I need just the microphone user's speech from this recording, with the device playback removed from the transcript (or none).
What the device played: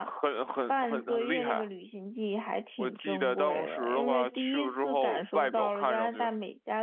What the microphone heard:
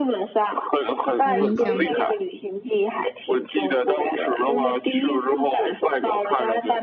有印象吗？